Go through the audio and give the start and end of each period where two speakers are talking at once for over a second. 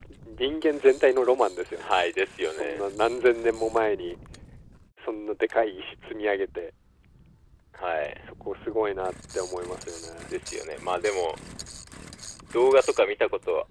none

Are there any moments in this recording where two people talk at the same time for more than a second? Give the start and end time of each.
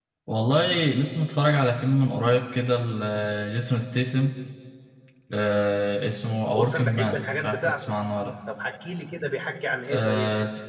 6.5-7.8

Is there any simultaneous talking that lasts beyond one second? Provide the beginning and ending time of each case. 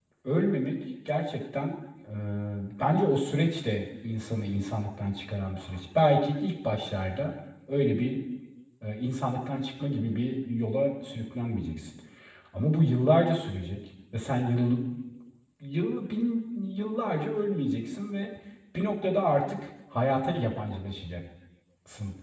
none

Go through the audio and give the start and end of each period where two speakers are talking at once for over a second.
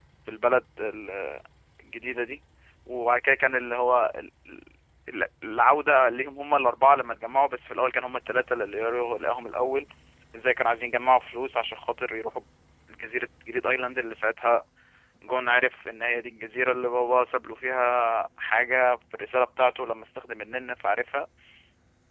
none

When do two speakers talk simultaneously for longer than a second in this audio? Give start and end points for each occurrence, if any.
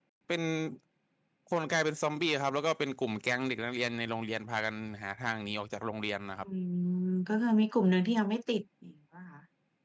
none

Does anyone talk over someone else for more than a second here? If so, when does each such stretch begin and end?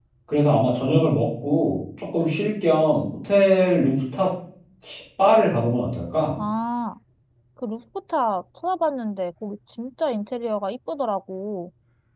none

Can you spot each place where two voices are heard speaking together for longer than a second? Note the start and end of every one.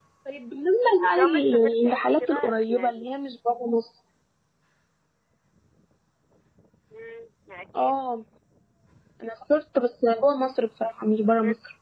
1.0-3.1

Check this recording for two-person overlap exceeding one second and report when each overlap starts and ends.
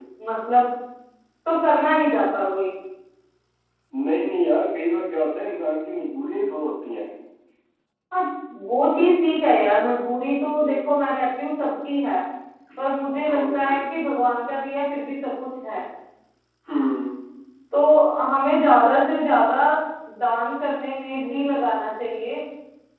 none

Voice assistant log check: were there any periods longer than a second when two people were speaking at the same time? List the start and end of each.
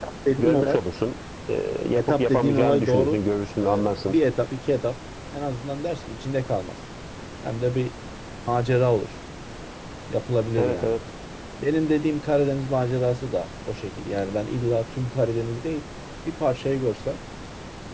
2.0-3.2

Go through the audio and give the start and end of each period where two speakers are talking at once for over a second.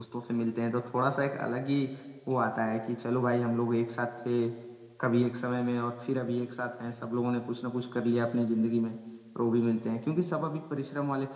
none

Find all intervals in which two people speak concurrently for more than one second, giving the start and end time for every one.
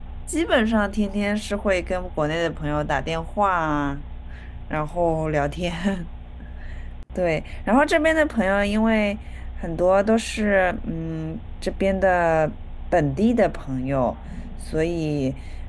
none

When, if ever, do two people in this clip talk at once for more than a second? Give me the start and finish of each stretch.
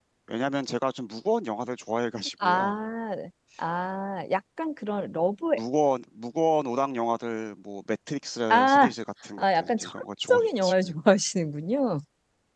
9.4-10.9

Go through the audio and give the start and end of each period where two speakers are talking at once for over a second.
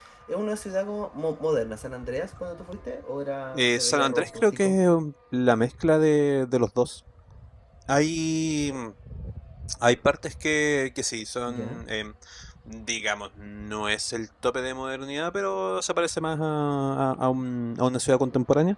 3.5-4.8

